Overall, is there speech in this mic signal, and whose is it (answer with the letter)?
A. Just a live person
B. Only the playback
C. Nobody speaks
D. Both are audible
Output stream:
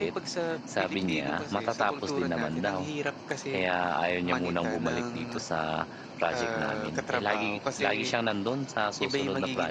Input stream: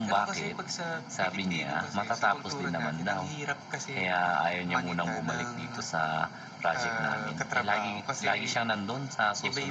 B